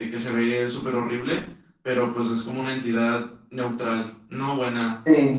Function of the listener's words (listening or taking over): taking over